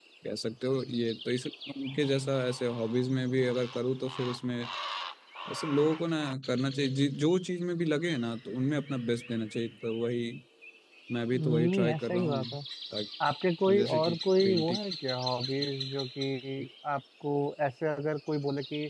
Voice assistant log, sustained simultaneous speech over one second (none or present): present